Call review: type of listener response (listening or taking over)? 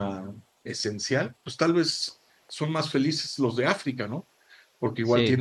listening